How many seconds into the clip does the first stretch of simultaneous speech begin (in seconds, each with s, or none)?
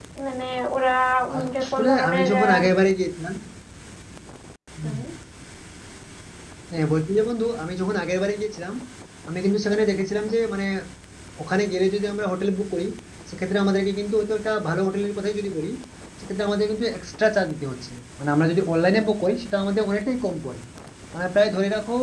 1.4 s